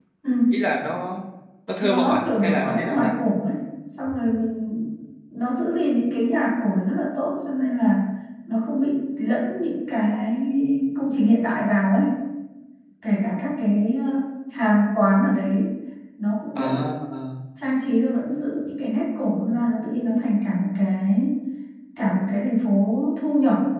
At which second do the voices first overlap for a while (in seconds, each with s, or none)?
1.8 s